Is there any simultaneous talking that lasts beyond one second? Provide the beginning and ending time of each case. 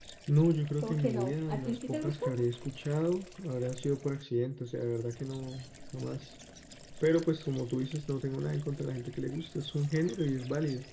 0.8-2.3

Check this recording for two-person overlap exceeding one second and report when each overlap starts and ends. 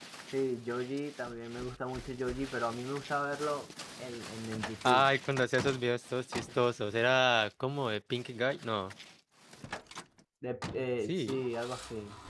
none

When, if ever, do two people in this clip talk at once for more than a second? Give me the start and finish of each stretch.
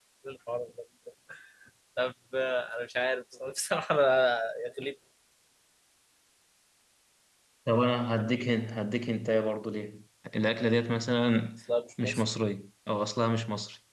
none

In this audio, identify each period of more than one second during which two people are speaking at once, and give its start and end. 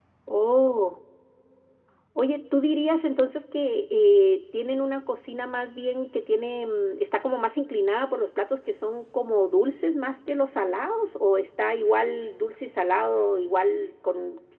none

